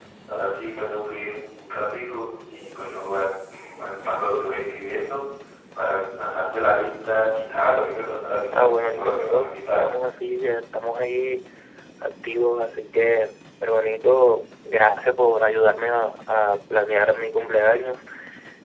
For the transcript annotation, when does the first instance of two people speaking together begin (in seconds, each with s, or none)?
8.5 s